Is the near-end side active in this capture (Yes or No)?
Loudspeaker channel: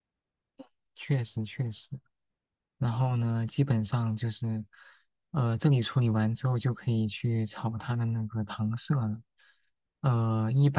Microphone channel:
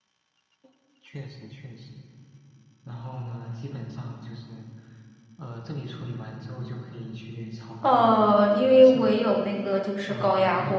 Yes